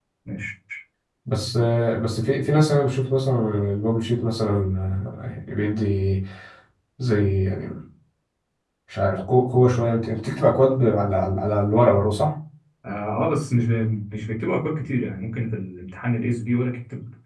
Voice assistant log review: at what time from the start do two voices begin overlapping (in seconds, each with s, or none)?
none